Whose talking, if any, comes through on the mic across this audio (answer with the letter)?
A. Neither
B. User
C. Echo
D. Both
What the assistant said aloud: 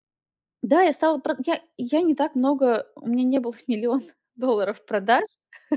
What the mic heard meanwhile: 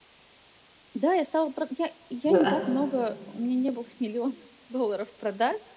D